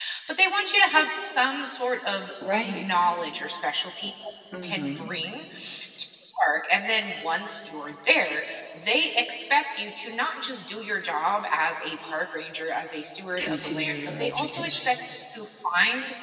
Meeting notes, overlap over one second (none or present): present